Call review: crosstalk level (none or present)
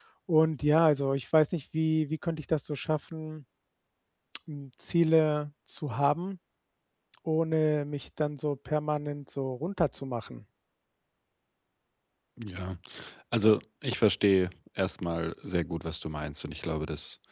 none